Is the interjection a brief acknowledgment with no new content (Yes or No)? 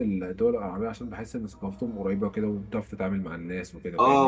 No